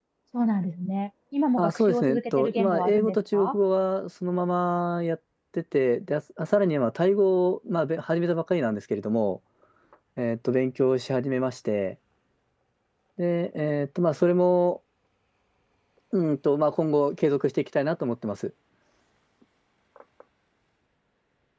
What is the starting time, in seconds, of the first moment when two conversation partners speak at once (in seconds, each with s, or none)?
1.6 s